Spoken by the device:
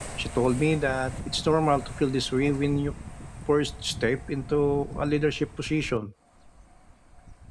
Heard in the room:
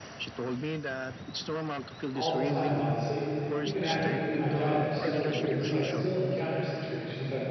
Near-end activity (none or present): present